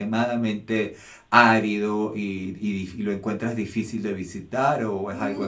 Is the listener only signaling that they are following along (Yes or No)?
No